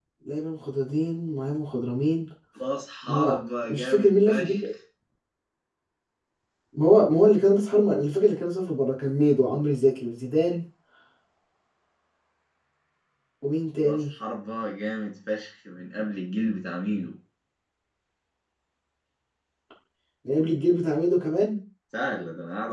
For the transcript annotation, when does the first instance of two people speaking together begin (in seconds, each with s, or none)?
3.1 s